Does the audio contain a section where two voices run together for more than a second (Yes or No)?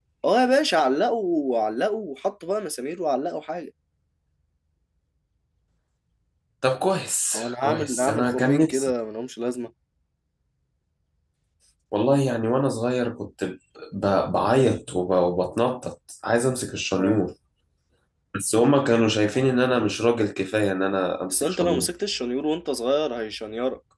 Yes